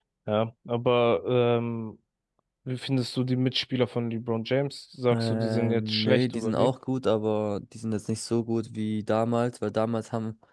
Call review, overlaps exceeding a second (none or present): present